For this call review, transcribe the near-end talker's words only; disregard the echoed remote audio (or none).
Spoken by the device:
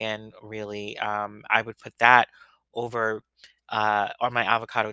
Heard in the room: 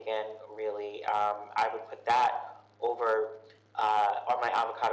none